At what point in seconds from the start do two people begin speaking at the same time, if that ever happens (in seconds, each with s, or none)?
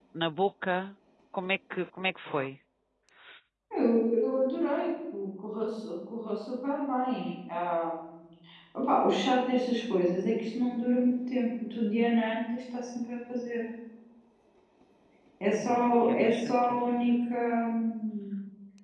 15.6 s